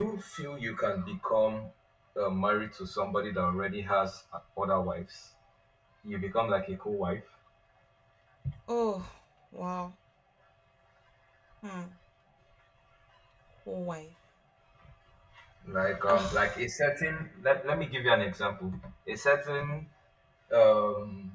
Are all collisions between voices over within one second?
Yes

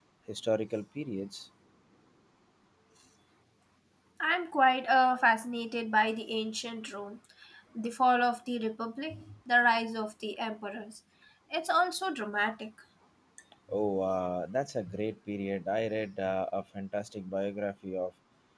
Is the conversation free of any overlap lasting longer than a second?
Yes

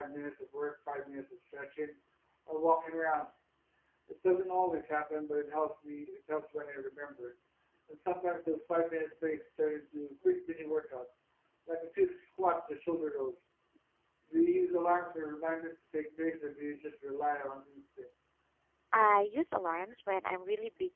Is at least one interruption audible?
No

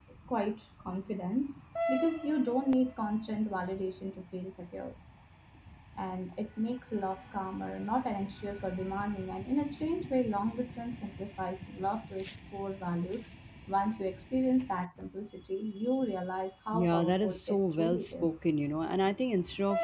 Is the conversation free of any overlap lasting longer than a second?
No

